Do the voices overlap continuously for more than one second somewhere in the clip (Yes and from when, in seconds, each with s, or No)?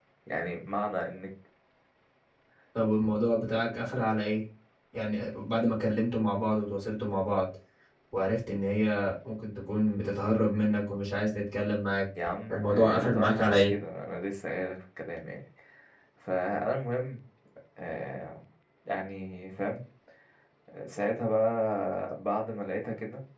Yes, from 12.5 s